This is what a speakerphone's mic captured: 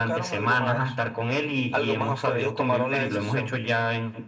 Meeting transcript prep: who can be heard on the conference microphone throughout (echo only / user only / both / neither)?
echo only